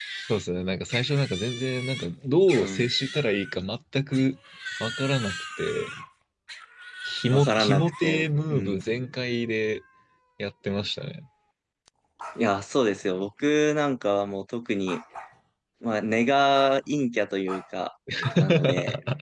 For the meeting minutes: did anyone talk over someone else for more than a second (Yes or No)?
Yes